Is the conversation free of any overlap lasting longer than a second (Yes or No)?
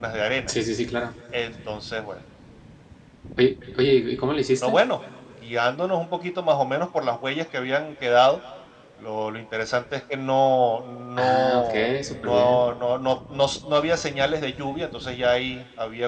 No